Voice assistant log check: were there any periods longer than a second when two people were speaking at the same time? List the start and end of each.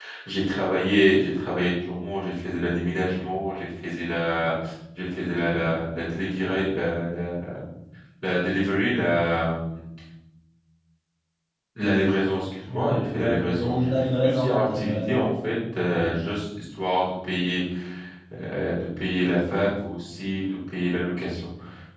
12.6-15.2

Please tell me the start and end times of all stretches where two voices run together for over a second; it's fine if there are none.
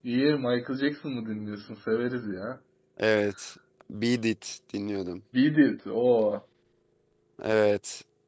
none

